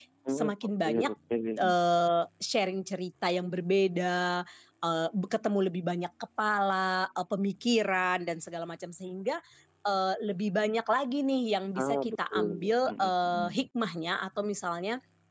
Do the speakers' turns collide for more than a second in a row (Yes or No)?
Yes